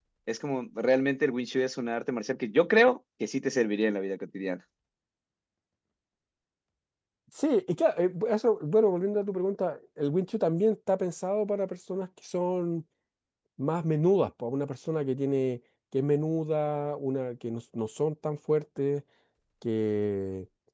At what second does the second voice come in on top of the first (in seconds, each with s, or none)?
none